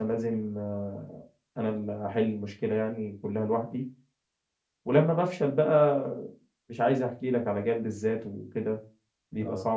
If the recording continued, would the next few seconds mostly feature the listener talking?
Yes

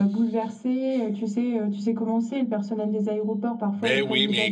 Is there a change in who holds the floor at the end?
Yes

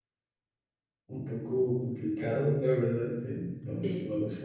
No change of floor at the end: Yes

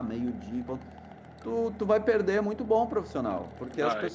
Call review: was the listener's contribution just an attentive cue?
Yes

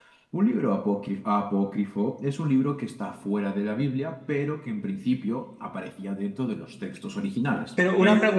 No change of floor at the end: No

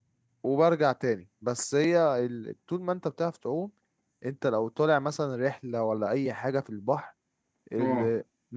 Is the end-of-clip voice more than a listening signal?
No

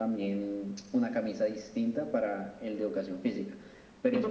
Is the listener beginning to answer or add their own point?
Yes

